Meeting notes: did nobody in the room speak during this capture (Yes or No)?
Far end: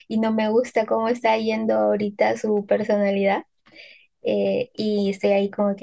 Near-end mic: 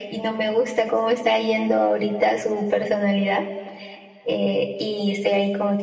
Yes